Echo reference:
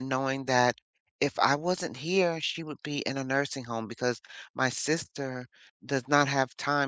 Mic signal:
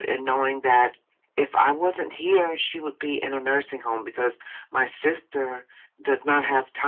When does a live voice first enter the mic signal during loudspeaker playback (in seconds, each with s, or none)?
none